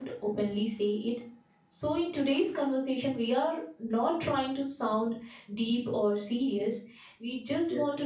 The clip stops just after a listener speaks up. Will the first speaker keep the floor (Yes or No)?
Yes